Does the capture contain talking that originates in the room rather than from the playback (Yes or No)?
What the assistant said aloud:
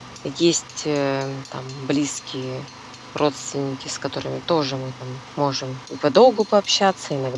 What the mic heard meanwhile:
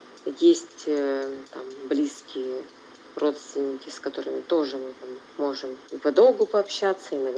No